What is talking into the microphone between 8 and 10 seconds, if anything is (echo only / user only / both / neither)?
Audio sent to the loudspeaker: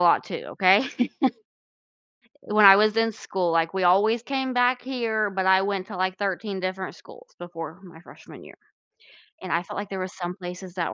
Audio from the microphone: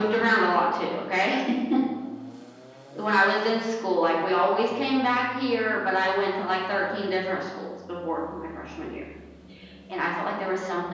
echo only